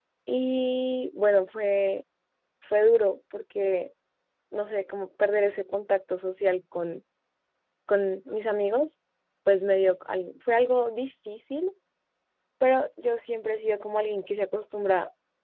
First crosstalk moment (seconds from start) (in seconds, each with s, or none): none